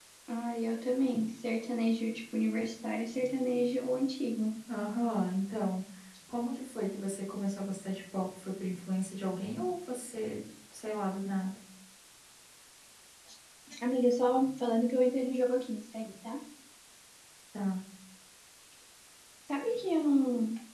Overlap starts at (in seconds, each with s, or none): none